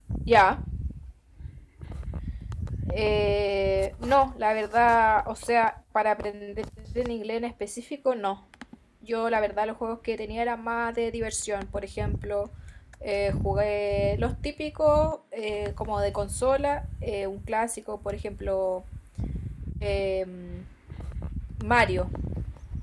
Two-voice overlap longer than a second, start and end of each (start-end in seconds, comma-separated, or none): none